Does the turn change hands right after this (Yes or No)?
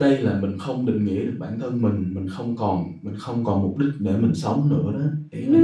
Yes